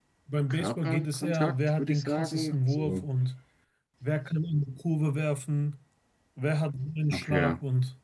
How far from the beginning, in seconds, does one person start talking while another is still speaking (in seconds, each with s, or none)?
0.5 s